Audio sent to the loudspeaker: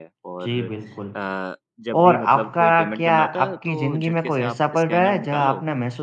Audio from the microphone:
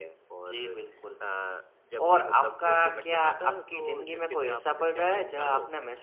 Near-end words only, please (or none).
none